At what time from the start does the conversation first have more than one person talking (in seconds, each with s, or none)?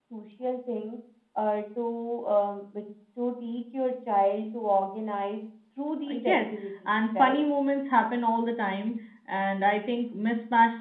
6.1 s